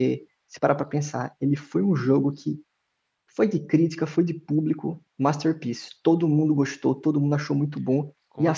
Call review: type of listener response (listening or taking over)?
listening